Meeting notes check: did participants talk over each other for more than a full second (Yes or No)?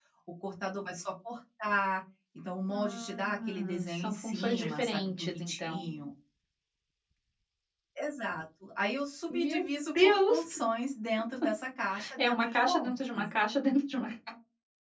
Yes